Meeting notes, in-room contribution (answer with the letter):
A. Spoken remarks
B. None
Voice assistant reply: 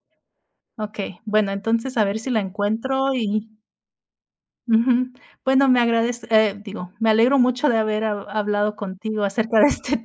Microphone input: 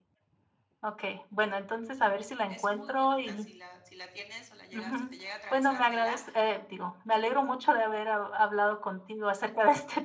A